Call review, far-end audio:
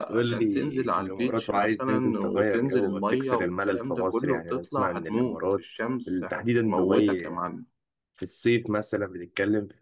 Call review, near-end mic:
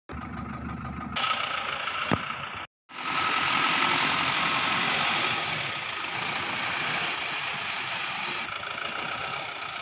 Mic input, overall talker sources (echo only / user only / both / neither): neither